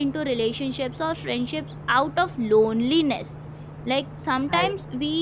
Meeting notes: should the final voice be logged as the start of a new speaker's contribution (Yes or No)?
No